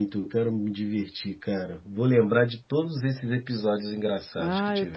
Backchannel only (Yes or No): No